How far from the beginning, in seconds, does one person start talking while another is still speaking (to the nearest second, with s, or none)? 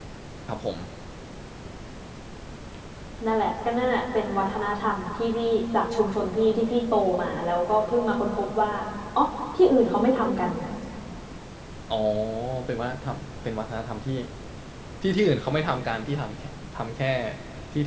none